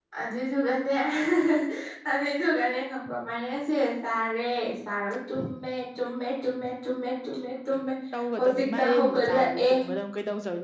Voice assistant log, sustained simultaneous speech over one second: present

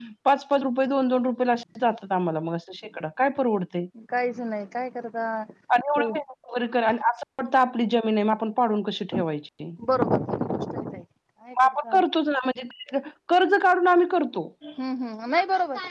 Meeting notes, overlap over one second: none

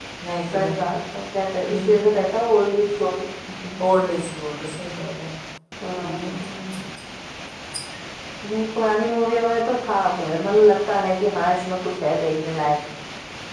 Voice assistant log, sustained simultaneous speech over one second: none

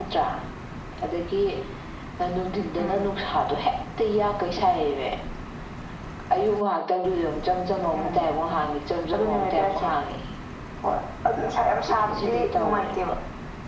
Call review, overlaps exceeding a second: present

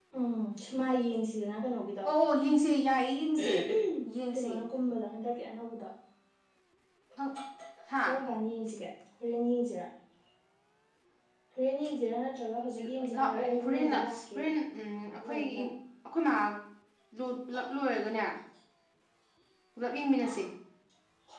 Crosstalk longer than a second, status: present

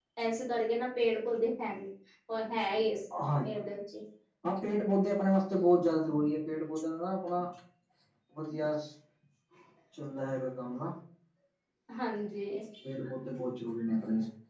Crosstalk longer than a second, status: none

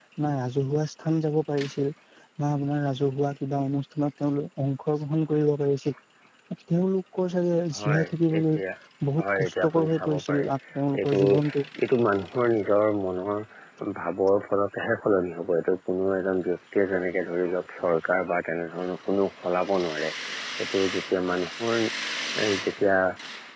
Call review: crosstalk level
present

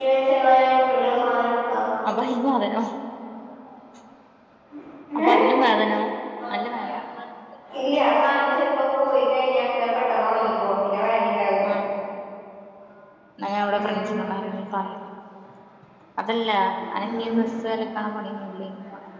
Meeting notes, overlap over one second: none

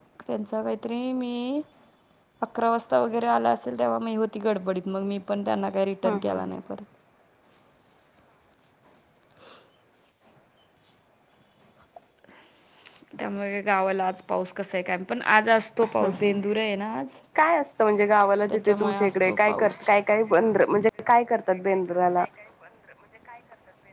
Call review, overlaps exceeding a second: present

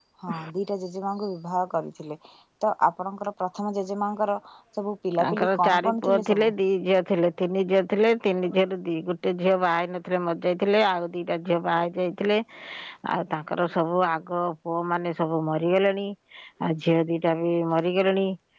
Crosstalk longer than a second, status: present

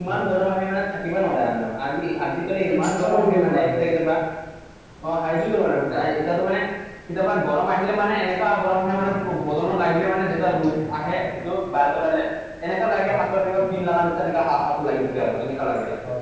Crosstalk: present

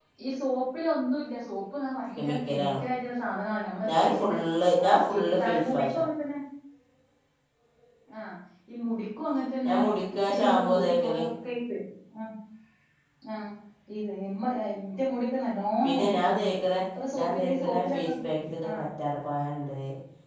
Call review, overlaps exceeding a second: present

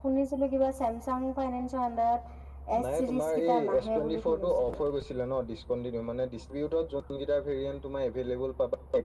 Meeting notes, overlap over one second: present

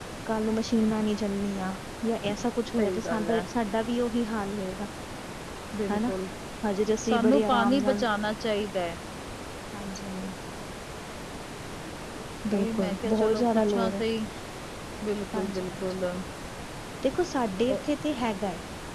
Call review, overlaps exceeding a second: present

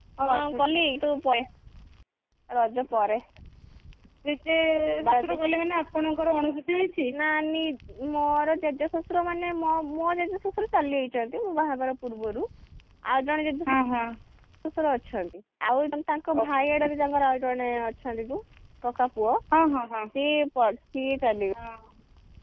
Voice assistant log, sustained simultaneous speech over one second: none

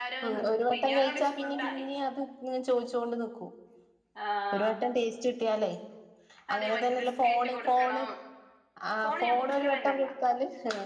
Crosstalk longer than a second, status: present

